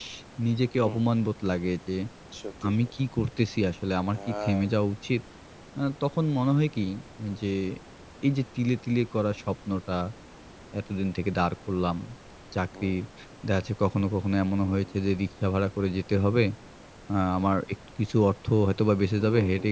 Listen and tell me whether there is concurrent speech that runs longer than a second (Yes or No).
No